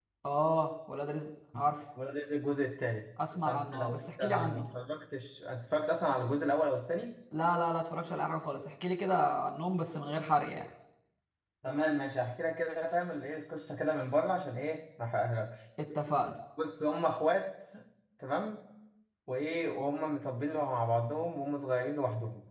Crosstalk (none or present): present